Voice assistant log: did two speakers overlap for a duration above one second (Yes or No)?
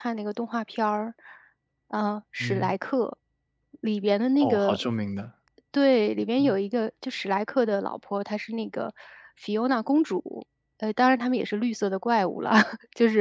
No